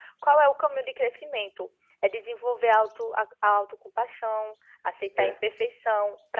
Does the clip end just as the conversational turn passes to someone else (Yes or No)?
No